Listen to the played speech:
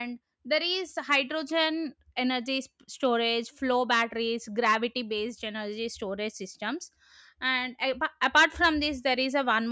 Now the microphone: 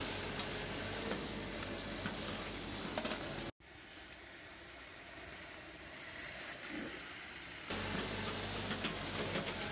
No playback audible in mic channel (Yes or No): Yes